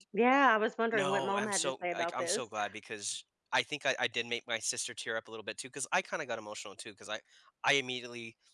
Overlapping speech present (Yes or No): Yes